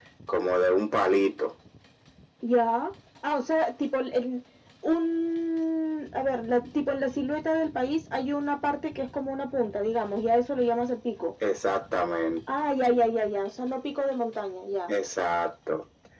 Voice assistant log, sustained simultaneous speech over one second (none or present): none